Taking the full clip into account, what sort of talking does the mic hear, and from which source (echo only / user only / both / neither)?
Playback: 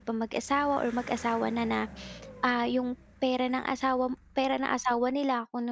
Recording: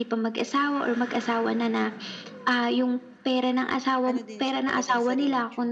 both